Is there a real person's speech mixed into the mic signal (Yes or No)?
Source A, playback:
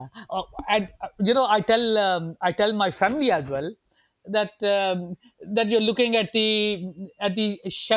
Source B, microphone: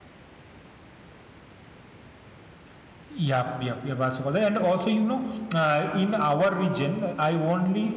Yes